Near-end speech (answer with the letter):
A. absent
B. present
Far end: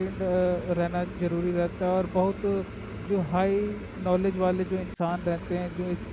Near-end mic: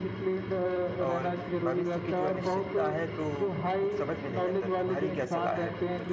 B